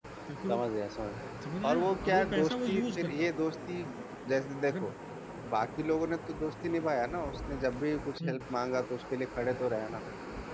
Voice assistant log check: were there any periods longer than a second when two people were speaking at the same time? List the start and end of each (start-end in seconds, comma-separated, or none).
1.6-3.4